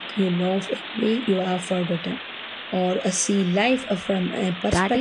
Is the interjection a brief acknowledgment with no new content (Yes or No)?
No